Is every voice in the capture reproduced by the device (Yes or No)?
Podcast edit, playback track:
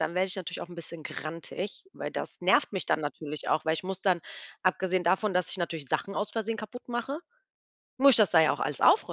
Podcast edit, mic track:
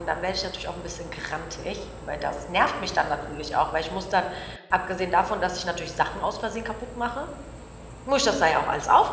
Yes